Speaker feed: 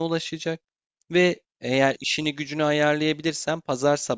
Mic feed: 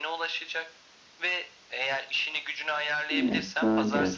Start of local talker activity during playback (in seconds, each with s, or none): 3.1 s